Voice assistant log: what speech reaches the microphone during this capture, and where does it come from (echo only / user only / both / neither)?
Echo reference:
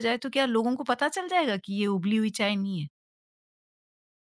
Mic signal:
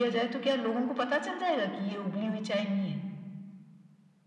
echo only